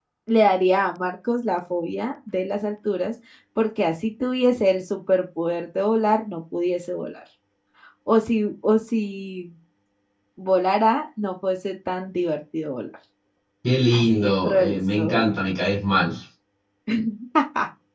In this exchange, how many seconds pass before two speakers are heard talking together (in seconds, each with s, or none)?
13.9 s